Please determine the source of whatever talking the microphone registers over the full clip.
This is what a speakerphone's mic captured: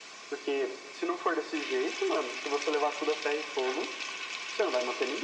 echo only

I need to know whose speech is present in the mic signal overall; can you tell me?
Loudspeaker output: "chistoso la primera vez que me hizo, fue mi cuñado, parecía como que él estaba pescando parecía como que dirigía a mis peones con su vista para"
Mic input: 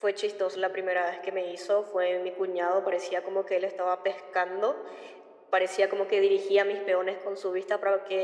echo only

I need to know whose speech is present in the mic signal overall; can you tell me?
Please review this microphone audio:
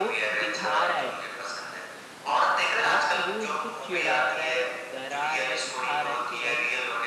both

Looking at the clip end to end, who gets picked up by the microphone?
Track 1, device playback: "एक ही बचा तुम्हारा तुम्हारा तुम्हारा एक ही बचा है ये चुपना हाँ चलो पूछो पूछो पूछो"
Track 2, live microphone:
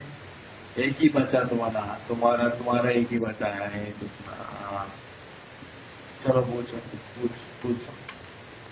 echo only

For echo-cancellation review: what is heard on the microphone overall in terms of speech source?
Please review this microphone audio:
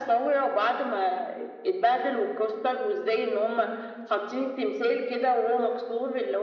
echo only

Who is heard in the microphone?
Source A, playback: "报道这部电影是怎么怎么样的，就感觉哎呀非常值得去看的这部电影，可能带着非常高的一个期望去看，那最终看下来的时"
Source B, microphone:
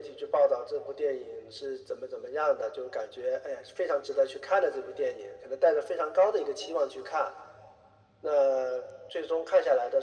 echo only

